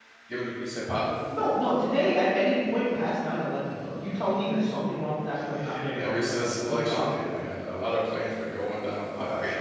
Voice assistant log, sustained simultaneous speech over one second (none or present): present